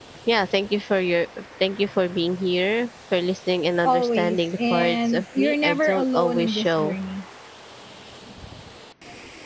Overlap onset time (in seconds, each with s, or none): 3.8 s